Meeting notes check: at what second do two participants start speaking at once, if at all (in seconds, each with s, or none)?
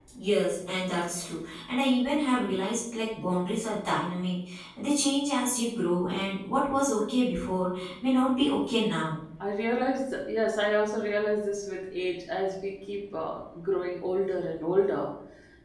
none